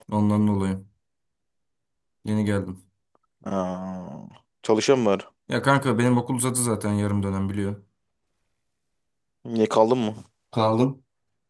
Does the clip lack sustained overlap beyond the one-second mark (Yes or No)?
Yes